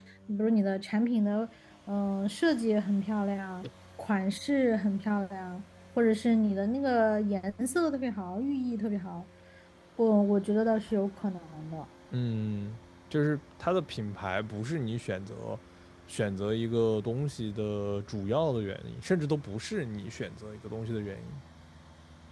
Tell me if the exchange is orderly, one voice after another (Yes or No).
Yes